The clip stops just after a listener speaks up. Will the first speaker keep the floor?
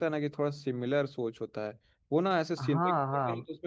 Yes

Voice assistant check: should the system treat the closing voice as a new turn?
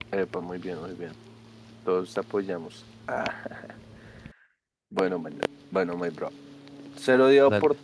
No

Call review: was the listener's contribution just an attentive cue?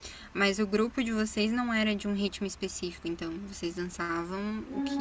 No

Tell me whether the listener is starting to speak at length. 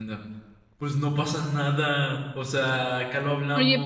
Yes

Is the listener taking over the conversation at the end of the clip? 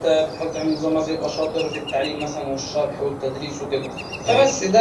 No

